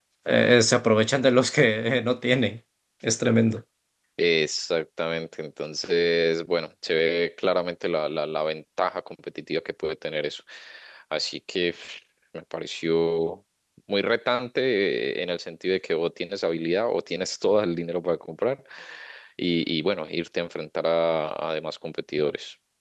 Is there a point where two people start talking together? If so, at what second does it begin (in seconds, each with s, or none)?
none